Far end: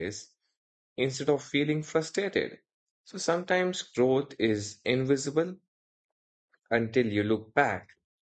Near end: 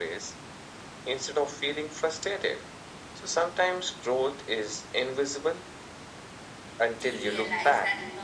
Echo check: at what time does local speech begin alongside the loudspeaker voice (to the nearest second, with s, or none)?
7 s